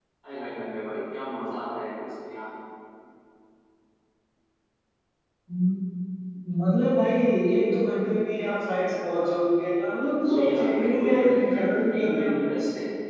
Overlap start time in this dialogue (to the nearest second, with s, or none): 10 s